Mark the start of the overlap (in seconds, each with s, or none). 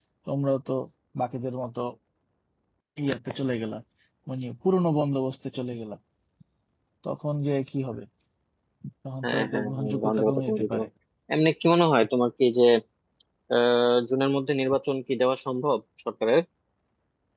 9.2 s